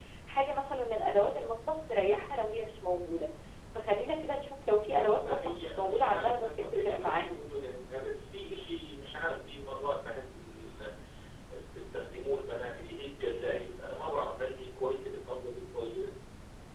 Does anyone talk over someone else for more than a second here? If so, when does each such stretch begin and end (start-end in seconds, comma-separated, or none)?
4.9-7.4